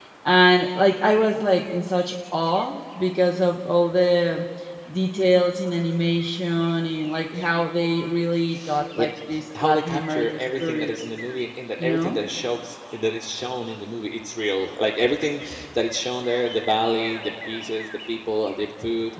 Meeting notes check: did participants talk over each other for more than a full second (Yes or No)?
Yes